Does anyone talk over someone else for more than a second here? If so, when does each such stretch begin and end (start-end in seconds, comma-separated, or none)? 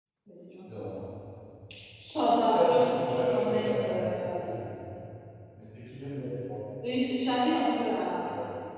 2.4-4.5